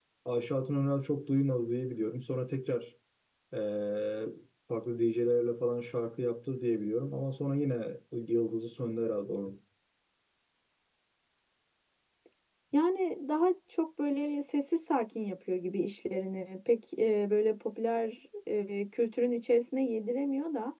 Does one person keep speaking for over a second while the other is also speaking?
No

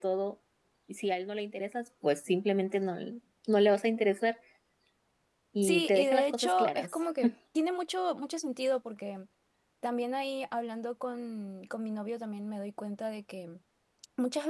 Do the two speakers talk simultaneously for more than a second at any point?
Yes, from 5.6 s

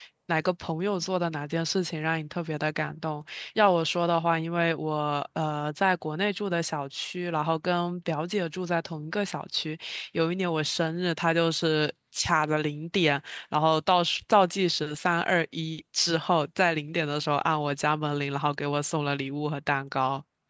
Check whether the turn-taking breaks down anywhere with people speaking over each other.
No

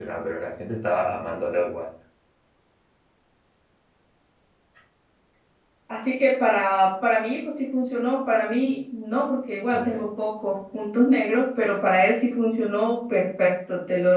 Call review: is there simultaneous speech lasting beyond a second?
No

